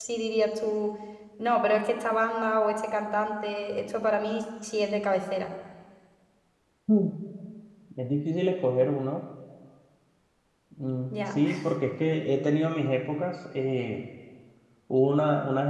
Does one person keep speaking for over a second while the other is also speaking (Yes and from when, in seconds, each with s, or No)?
No